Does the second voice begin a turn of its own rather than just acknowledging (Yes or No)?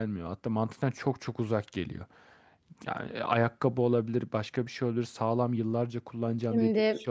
No